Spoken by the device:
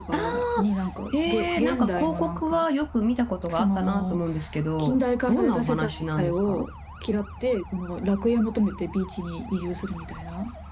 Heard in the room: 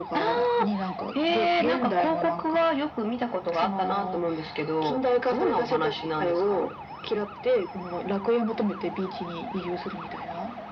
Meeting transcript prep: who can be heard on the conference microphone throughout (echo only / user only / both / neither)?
echo only